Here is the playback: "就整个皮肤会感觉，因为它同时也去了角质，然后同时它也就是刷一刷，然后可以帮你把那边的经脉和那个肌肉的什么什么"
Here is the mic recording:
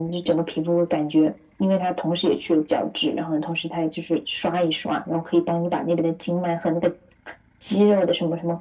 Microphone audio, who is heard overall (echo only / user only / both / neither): echo only